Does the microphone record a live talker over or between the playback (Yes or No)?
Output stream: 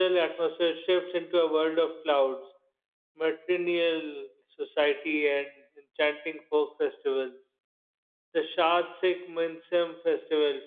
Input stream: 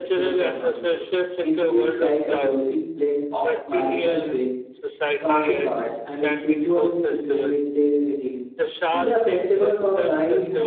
Yes